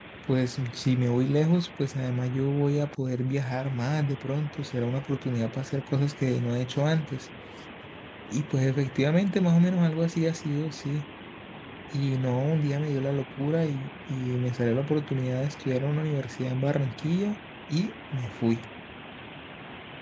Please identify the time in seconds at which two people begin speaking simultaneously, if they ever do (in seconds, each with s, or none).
none